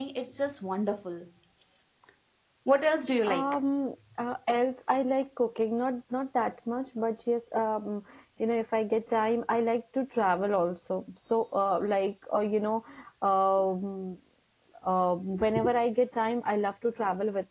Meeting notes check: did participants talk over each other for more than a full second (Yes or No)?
No